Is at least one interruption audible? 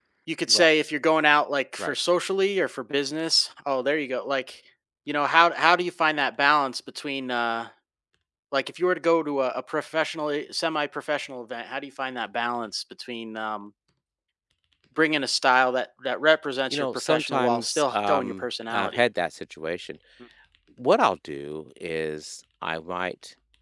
Yes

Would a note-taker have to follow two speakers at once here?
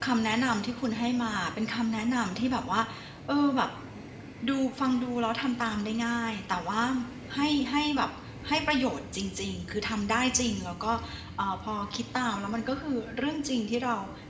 No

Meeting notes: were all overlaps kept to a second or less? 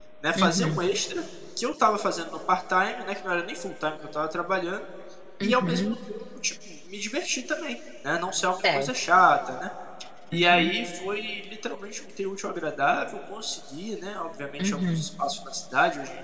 Yes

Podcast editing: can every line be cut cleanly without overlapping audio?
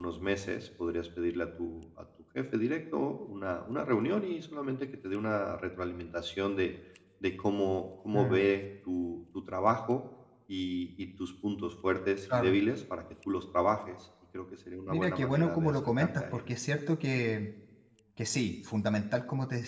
No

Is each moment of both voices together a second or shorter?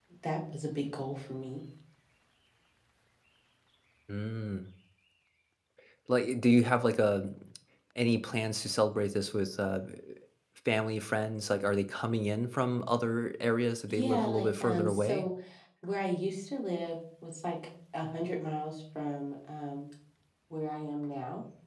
No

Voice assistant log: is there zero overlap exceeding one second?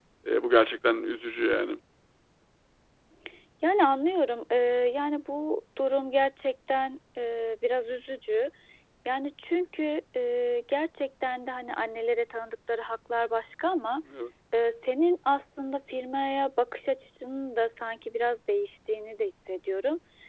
Yes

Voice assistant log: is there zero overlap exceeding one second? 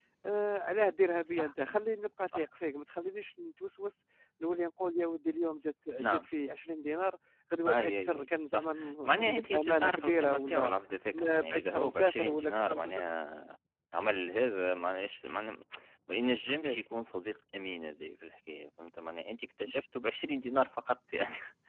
No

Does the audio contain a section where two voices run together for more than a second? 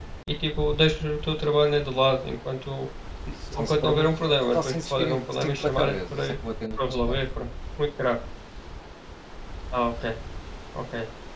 Yes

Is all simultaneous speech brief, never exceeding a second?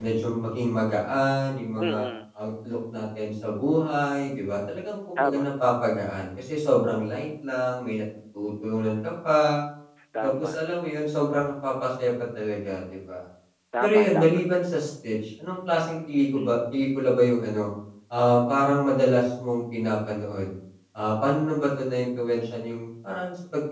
Yes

